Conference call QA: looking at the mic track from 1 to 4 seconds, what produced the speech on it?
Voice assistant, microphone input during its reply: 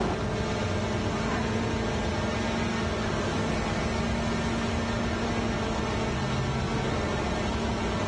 neither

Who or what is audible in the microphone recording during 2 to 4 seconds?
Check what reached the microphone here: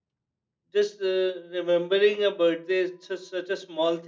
user only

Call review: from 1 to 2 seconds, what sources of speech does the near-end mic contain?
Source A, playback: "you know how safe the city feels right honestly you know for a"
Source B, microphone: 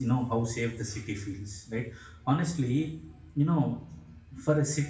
echo only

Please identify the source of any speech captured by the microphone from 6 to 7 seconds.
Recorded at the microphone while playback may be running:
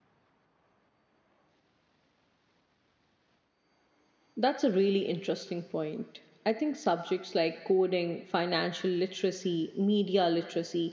user only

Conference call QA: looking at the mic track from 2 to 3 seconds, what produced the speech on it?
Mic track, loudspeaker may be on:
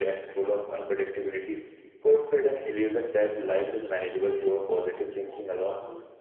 echo only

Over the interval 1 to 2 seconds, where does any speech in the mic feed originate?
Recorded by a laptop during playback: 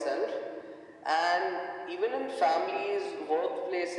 echo only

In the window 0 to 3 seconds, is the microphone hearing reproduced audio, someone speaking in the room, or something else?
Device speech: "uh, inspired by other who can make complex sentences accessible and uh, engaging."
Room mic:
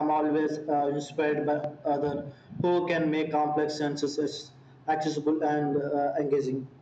echo only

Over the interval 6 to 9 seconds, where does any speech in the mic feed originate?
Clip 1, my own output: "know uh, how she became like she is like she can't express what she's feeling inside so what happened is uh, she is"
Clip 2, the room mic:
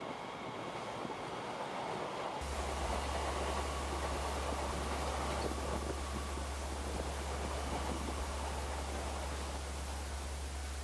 neither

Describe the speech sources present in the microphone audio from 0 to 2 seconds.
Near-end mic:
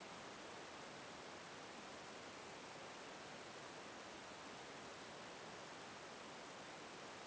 neither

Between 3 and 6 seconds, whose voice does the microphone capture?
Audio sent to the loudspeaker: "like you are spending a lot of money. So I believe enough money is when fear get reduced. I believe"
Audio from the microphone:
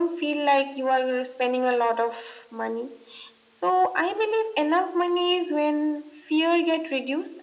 echo only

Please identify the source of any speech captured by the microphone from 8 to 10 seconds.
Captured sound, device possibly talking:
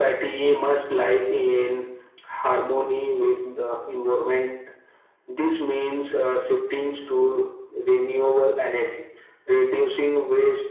echo only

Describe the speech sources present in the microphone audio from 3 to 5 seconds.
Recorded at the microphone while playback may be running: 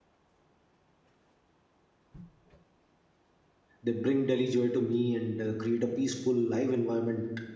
user only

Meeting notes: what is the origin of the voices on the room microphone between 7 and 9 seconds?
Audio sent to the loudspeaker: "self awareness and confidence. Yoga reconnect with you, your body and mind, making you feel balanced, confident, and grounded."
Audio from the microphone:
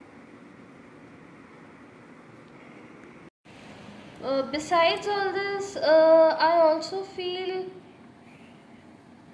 user only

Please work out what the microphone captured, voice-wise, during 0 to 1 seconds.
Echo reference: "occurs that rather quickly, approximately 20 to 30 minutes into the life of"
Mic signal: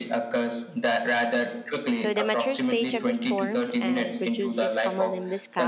echo only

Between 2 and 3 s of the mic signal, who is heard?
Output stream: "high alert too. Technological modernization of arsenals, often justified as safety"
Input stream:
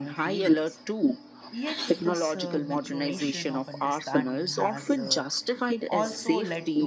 both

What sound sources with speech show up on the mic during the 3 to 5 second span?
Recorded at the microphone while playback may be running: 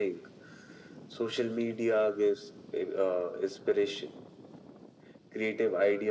echo only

